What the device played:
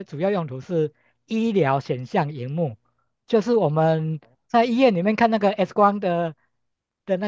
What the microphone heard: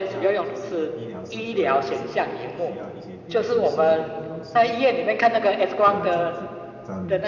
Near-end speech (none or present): present